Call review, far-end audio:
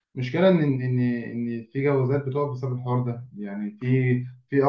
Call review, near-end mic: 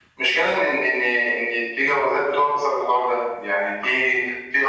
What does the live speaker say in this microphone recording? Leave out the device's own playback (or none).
none